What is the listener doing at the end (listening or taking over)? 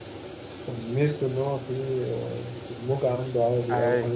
taking over